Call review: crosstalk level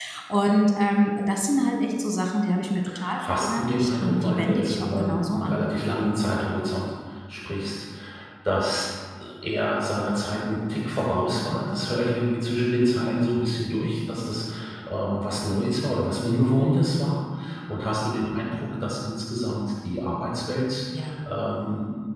present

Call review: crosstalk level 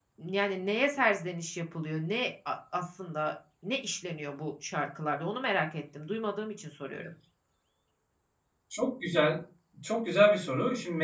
none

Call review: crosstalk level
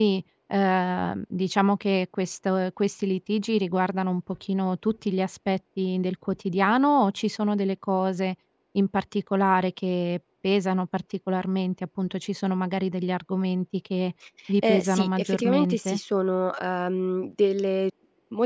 present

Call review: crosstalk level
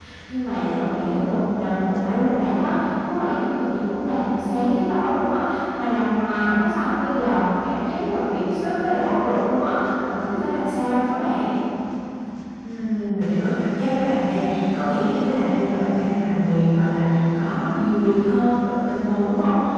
none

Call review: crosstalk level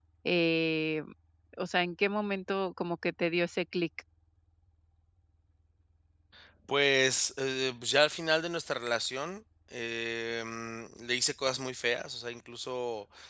none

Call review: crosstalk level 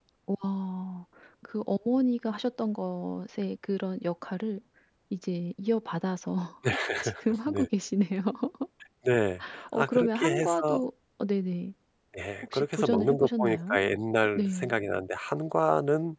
present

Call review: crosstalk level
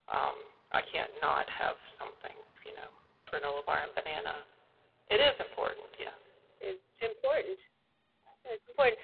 none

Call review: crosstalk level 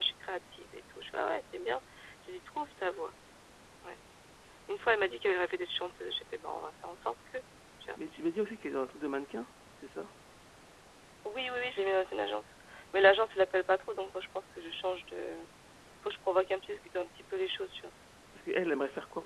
none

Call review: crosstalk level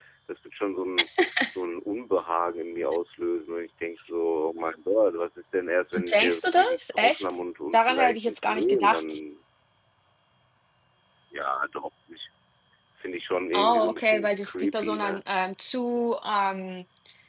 present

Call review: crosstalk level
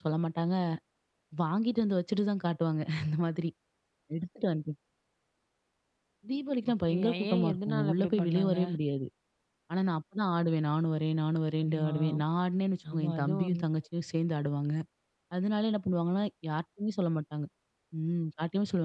present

